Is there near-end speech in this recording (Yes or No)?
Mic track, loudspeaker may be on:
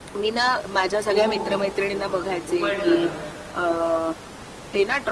Yes